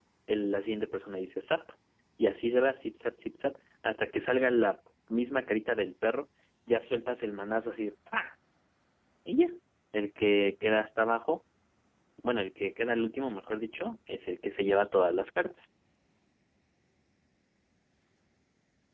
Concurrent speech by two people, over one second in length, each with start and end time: none

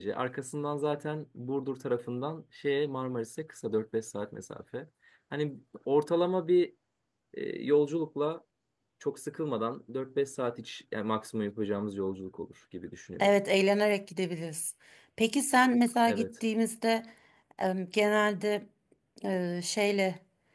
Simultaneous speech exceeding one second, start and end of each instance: none

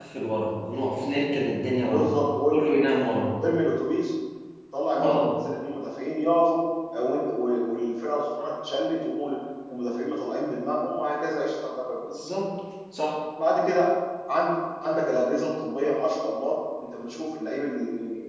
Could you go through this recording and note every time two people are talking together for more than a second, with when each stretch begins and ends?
none

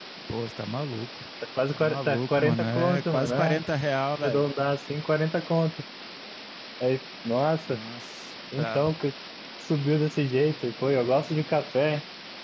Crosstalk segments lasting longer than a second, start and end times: 1.7-3.6

